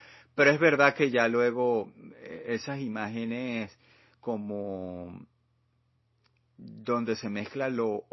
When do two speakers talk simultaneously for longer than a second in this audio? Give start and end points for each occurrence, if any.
none

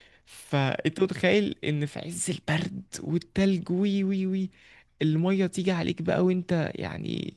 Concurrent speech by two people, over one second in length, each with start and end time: none

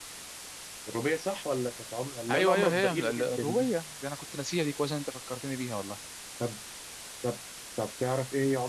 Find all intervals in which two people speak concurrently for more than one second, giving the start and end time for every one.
2.3-3.7

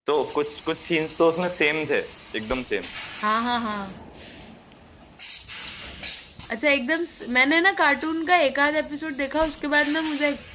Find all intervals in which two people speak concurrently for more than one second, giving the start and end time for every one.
none

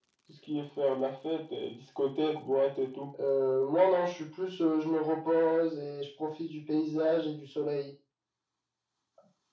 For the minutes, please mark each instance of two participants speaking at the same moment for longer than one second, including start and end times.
none

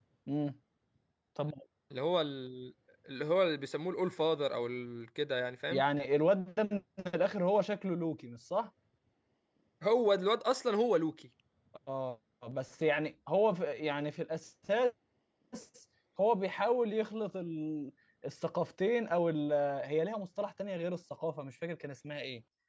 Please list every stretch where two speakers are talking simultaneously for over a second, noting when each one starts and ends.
none

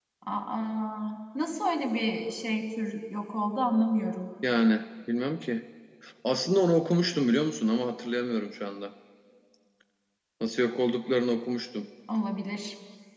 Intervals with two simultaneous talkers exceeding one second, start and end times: none

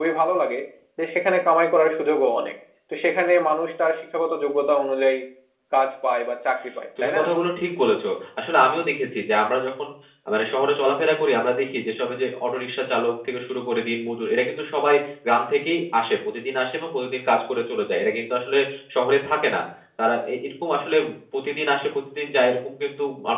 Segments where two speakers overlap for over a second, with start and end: none

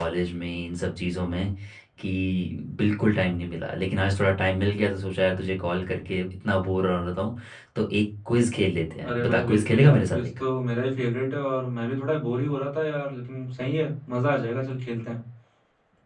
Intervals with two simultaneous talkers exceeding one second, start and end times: 9.1-10.4

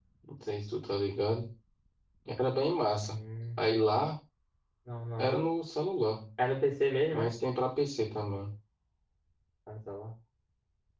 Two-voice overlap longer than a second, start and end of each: none

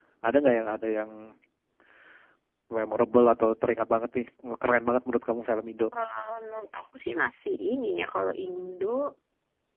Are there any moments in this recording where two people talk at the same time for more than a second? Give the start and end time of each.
none

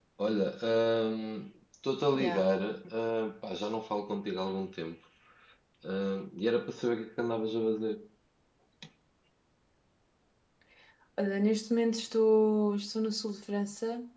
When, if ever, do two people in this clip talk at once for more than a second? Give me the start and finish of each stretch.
none

